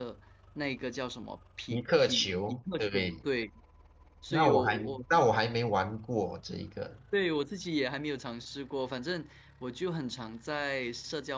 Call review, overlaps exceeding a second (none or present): present